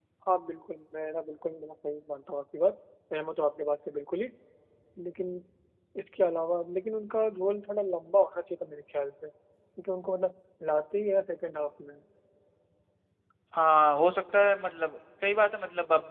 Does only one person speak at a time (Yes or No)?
Yes